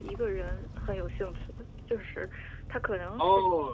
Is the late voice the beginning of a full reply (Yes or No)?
Yes